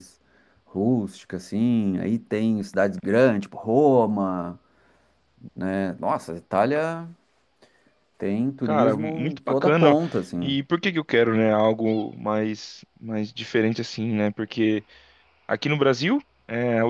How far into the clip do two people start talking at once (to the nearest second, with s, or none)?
9 s